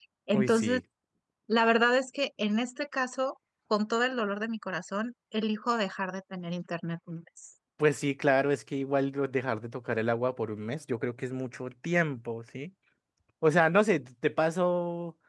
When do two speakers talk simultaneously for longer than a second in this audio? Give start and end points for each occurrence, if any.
none

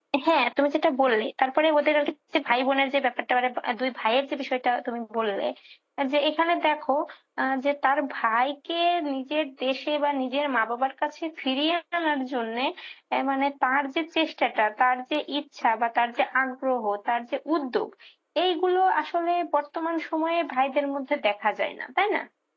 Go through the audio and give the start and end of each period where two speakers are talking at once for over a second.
none

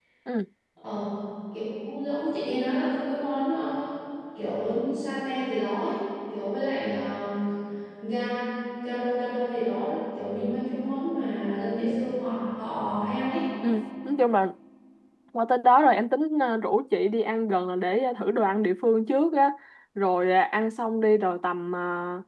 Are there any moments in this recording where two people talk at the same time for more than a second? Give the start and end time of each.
none

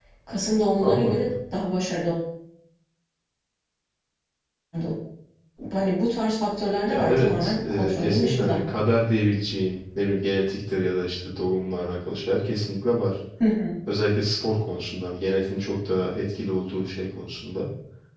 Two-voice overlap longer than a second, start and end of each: 6.9-8.6

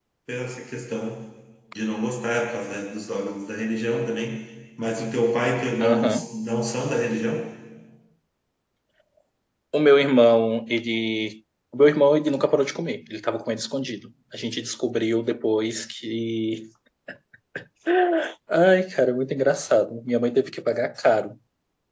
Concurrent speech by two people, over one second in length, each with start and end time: none

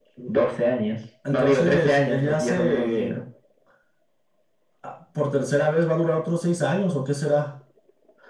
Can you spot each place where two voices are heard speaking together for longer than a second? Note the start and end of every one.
1.3-3.1

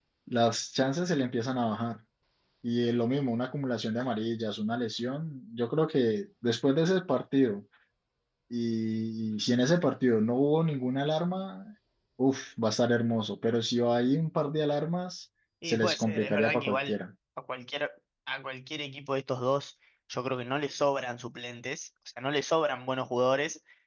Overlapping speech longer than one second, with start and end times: 15.6-17.0

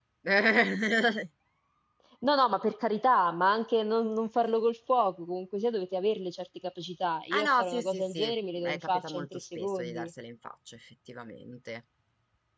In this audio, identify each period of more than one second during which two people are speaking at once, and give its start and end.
7.3-10.1

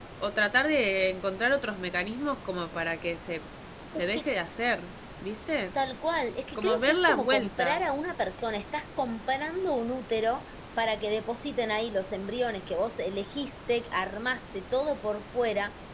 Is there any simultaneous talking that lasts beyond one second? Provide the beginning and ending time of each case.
6.5-7.8

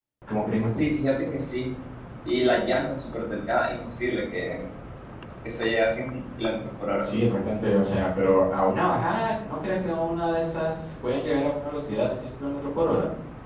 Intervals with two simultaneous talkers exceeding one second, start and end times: none

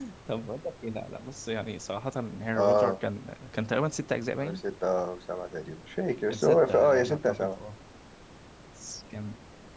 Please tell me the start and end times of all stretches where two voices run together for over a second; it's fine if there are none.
6.3-7.6

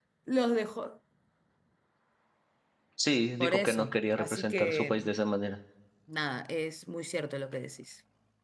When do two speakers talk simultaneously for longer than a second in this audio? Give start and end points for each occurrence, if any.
3.4-5.0

